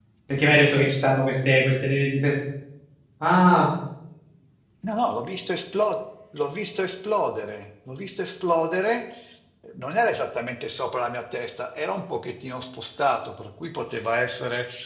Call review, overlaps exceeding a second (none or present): none